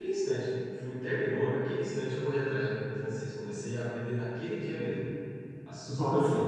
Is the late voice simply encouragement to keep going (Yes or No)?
Yes